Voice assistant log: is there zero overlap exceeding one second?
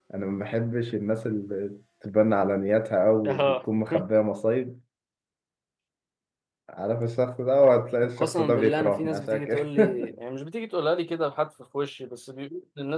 No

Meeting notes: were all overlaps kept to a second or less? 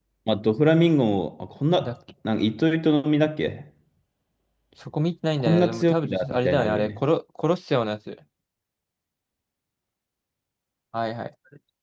No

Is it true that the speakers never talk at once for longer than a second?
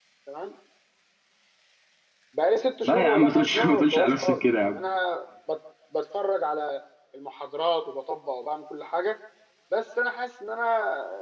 No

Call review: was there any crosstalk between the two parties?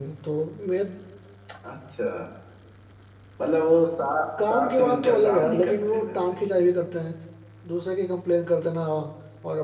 Yes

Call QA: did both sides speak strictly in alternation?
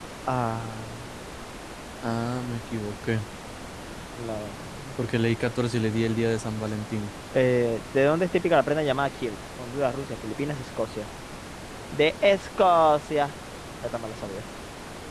Yes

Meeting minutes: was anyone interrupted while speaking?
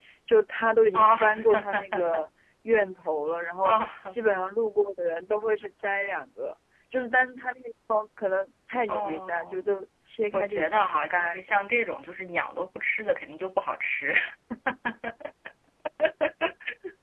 Yes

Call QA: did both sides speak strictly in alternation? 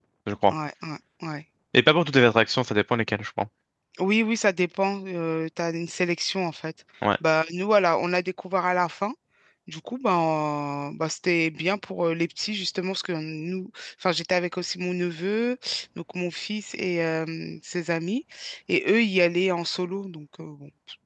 Yes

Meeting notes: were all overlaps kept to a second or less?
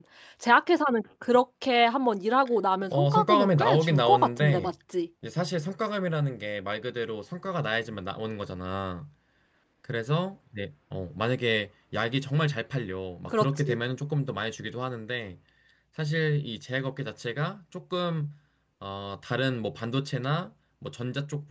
No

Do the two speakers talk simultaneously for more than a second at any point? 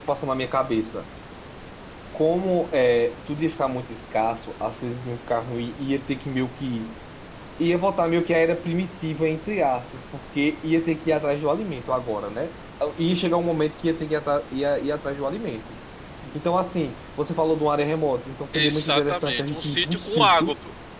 Yes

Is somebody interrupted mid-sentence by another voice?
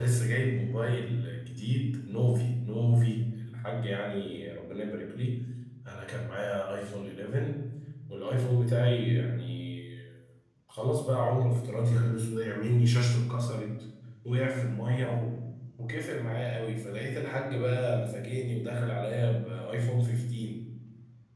No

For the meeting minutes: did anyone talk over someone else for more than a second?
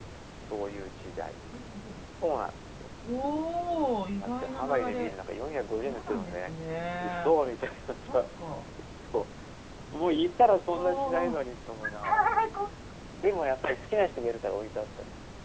Yes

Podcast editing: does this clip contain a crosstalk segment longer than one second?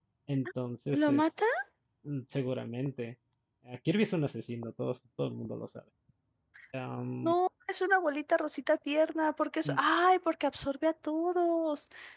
No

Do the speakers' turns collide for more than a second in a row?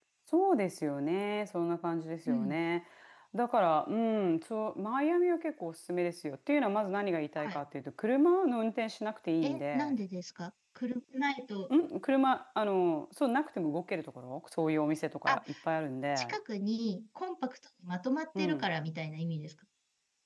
No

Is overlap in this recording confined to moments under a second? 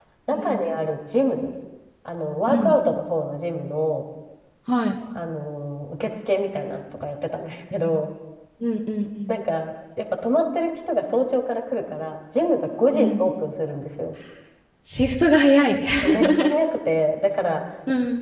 Yes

